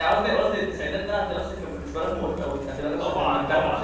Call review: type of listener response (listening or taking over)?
taking over